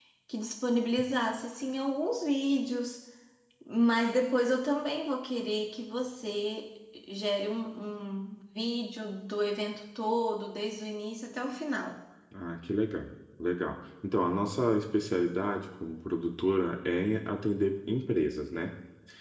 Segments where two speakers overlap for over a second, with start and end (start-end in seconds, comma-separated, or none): none